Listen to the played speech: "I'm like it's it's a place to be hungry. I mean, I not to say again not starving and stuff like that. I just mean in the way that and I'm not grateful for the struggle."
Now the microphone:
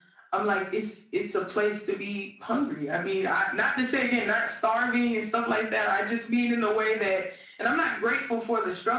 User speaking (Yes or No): No